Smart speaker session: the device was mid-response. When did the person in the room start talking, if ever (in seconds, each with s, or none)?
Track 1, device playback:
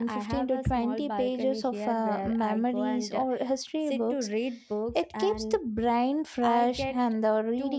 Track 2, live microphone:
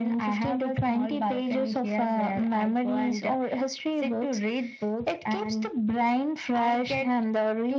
none